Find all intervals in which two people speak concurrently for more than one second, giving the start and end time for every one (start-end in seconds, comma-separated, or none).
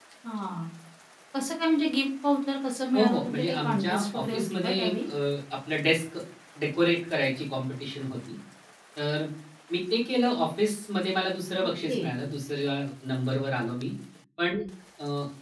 2.9-5.1